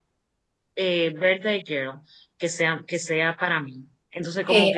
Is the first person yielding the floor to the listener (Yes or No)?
Yes